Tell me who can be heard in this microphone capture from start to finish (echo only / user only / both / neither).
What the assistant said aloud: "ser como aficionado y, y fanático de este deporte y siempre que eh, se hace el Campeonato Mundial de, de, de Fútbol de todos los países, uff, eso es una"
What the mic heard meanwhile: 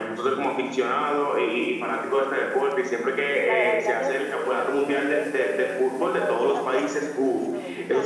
both